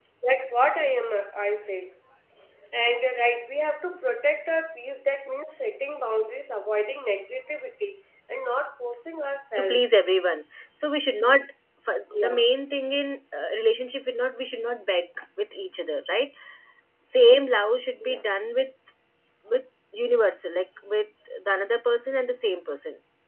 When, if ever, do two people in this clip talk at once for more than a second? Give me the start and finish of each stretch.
none

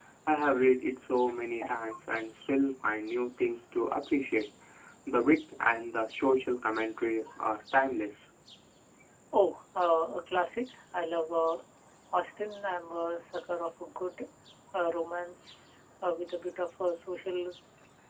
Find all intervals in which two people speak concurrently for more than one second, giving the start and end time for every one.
none

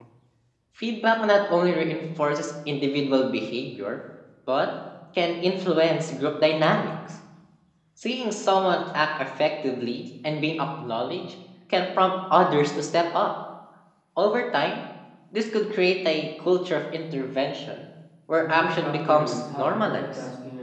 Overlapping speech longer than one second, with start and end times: 18.4-20.1

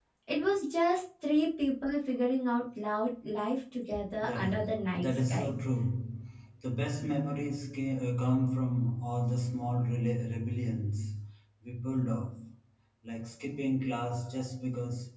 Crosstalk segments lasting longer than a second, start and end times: 4.2-5.5

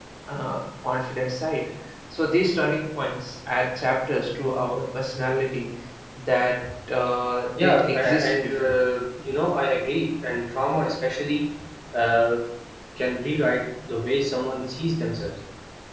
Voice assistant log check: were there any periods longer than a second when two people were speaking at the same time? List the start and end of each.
7.5-8.7

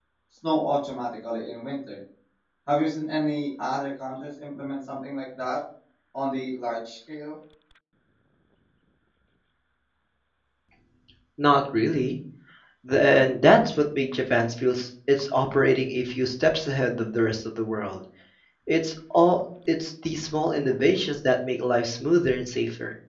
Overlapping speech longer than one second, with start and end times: none

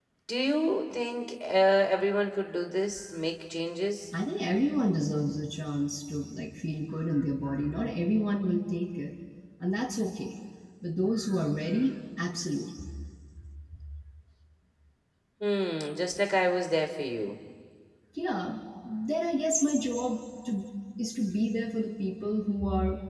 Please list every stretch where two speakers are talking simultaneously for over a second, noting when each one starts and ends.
none

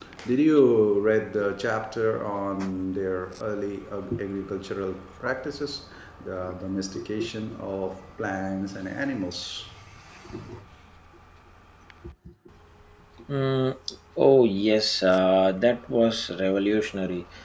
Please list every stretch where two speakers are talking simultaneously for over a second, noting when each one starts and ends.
none

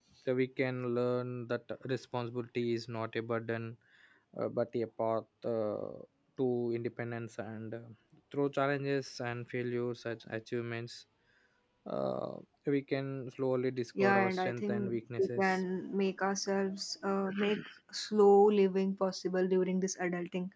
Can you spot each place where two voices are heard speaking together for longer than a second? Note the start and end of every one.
14.0-15.6

